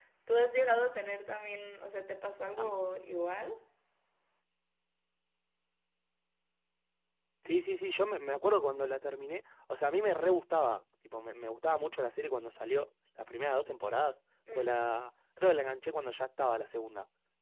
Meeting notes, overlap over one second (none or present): none